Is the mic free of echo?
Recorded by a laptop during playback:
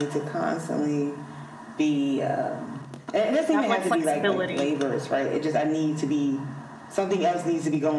No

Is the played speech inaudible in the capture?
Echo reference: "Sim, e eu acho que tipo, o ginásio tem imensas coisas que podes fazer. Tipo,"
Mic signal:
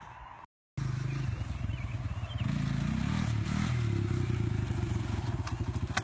Yes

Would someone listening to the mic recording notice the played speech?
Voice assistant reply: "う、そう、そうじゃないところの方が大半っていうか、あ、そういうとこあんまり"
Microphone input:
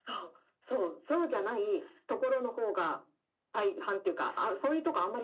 Yes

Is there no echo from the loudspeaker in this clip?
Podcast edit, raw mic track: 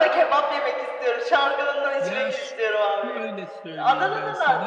No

